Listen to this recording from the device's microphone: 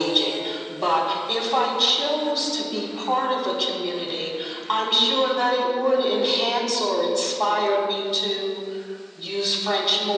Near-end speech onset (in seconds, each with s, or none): none